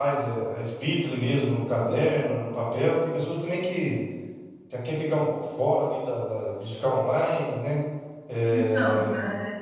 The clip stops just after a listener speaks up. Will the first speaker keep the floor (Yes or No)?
Yes